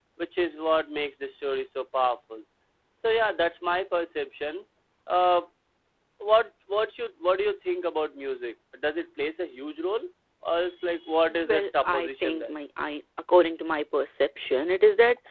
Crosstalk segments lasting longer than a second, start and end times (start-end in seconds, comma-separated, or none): 11.3-12.5